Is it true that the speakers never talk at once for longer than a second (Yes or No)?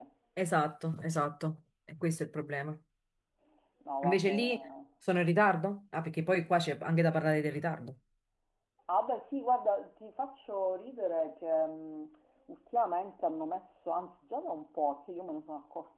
Yes